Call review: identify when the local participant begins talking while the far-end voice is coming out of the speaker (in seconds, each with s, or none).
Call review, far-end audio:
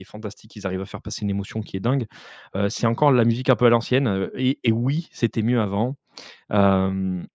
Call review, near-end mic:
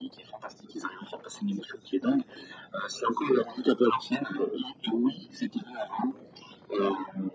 none